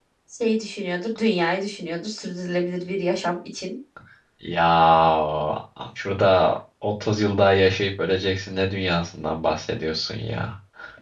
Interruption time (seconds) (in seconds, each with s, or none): none